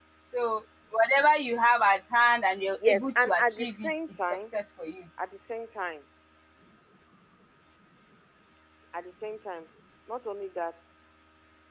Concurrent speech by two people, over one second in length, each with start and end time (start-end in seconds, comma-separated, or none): 2.8-4.5